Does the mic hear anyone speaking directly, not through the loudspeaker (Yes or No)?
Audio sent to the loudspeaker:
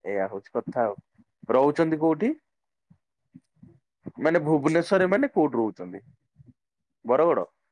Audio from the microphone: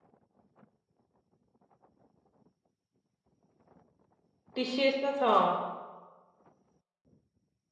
Yes